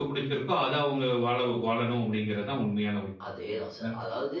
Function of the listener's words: taking over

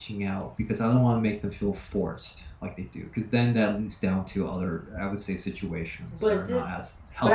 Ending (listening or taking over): taking over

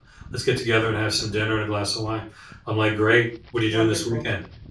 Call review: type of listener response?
listening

